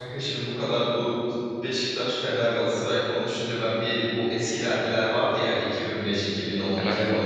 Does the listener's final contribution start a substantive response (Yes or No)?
No